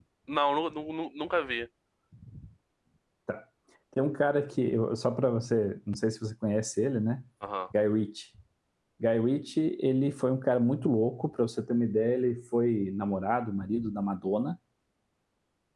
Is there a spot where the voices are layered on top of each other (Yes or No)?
No